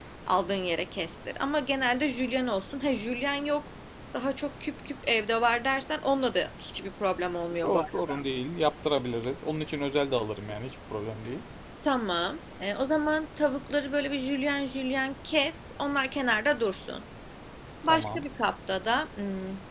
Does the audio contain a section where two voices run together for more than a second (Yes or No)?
No